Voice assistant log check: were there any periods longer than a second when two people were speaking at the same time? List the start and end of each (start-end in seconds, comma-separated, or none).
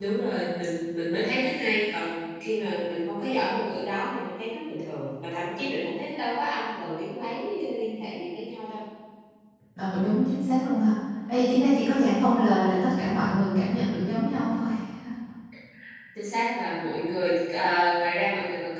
none